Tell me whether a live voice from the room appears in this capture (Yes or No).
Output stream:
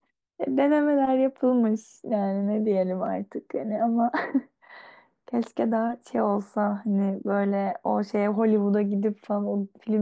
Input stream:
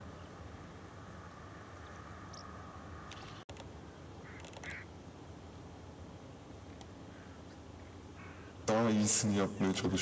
Yes